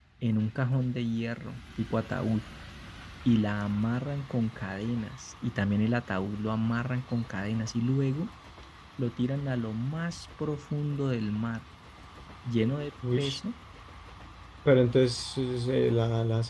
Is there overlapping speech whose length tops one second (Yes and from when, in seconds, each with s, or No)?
No